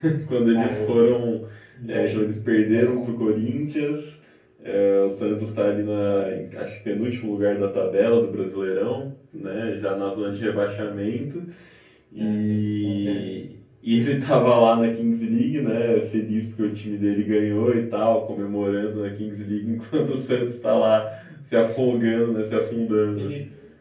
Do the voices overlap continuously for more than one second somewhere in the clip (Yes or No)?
Yes